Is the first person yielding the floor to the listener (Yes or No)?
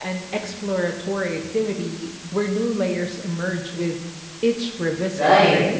Yes